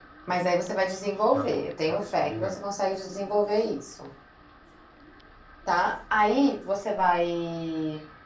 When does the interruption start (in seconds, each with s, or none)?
1.3 s